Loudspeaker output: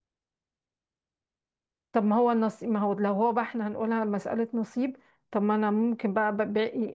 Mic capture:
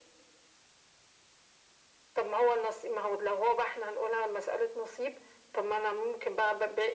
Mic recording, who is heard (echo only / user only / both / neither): echo only